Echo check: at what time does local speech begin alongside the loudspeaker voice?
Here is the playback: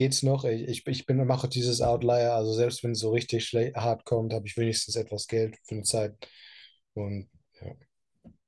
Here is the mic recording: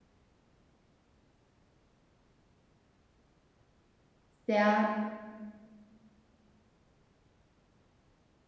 4.5 s

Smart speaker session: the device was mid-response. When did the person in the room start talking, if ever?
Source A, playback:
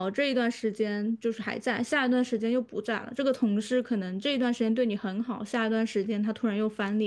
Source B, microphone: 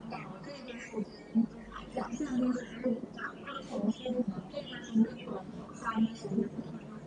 none

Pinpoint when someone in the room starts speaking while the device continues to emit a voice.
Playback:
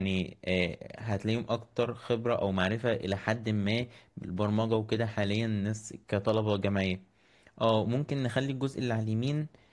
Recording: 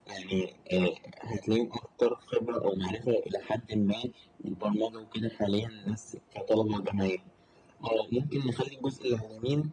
none

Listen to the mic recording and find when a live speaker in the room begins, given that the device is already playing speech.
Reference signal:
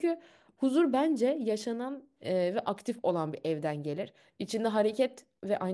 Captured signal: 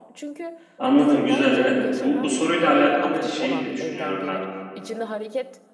0.8 s

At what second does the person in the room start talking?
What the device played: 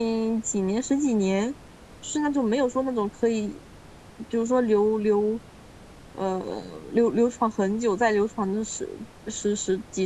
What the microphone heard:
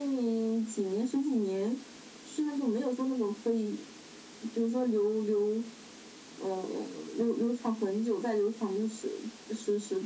none

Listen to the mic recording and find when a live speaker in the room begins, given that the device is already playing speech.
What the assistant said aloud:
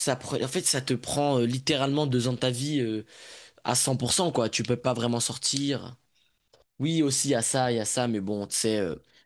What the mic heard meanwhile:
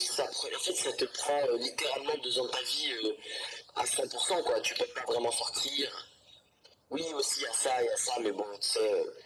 none

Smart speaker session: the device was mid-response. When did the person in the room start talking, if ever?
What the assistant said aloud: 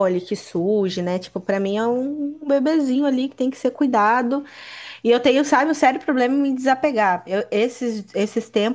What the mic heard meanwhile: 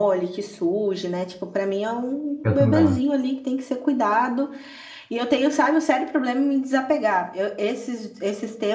2.4 s

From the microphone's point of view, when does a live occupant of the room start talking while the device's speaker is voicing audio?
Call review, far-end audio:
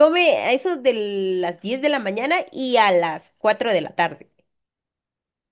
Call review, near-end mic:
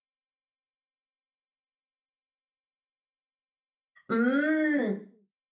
4.1 s

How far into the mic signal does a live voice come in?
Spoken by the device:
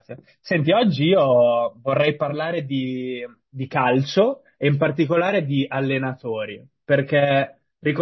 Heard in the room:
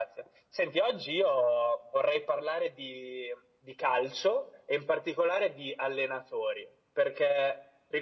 none

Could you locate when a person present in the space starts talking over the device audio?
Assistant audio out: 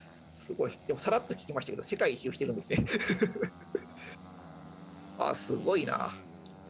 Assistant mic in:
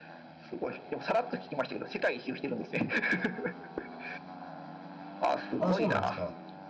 5.6 s

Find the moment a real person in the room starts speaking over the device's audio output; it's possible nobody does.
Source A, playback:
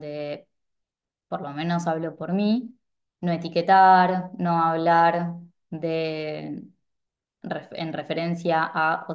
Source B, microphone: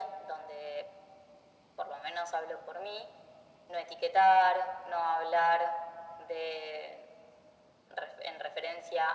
none

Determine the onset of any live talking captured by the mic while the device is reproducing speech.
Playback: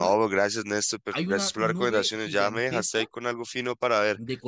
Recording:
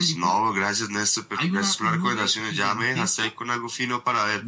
none

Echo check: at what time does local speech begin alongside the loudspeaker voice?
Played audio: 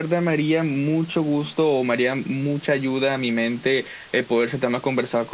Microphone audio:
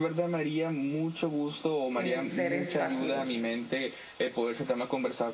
1.9 s

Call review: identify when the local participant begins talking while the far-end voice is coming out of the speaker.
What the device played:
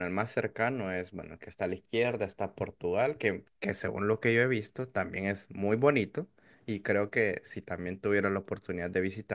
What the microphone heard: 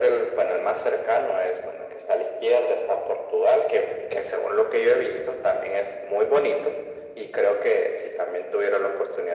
none

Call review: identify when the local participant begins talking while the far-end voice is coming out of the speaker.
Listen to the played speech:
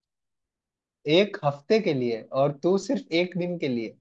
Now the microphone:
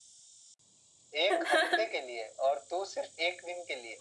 1.3 s

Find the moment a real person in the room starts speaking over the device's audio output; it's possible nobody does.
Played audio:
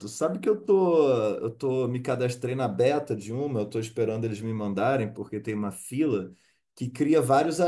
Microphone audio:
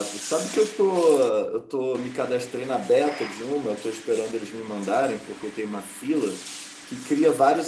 none

